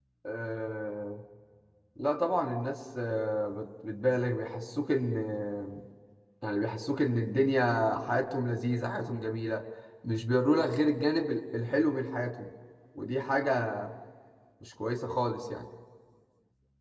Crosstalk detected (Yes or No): No